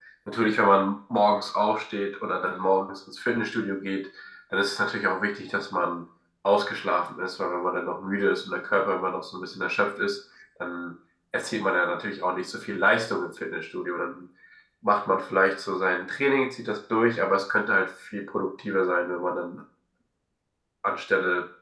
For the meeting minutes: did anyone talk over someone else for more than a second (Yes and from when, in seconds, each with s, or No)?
No